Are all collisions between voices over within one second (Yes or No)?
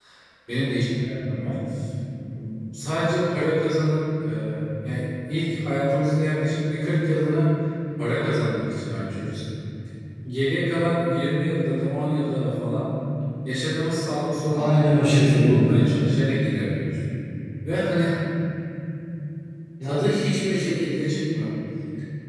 No